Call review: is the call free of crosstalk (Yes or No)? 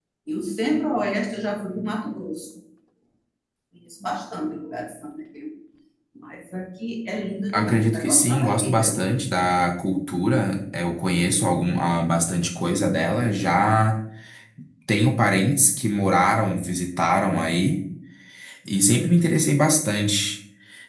No